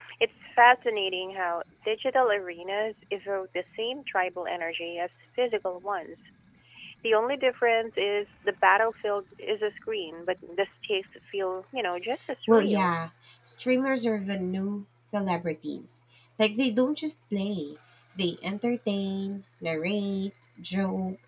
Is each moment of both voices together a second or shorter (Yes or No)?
Yes